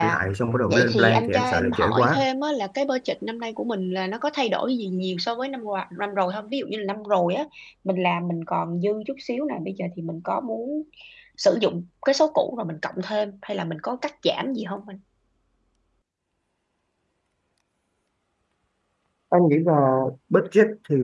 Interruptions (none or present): present